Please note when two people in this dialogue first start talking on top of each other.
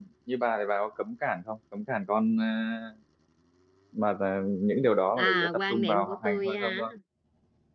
5.2 s

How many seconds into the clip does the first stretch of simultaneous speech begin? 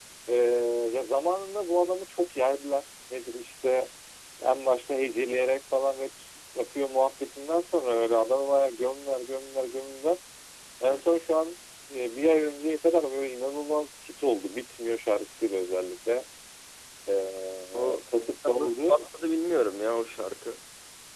17.7 s

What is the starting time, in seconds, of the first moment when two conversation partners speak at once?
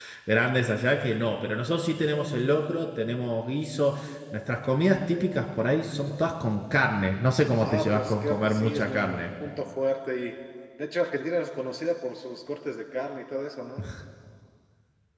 7.6 s

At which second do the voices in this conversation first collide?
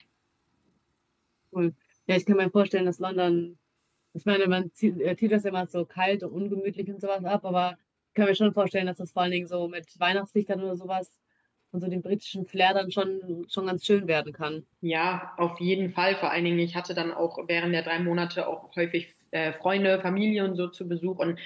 none

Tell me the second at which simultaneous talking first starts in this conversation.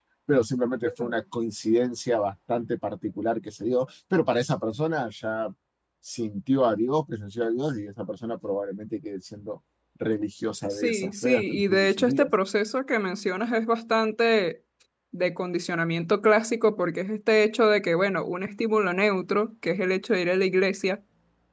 10.7 s

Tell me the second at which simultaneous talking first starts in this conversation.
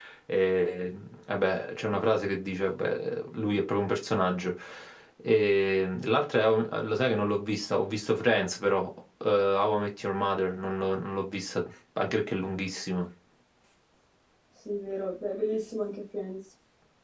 none

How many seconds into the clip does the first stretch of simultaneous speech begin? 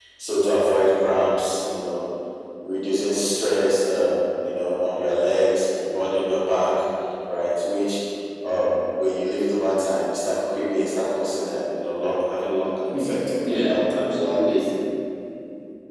12.9 s

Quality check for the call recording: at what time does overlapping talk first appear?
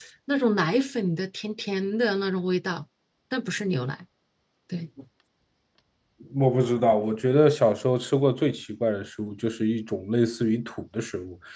none

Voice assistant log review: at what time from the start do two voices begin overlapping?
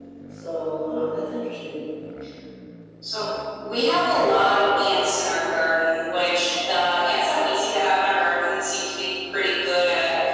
none

